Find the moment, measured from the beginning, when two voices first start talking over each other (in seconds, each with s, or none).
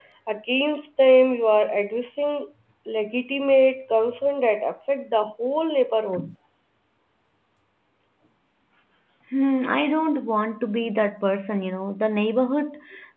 none